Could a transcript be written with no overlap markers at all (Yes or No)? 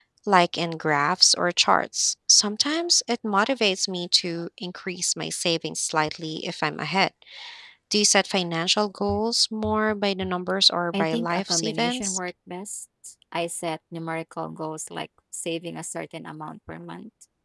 No